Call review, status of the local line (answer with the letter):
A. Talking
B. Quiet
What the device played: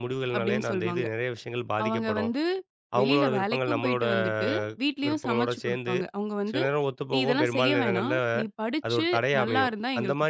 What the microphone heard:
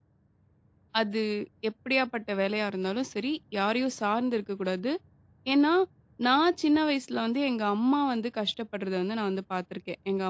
A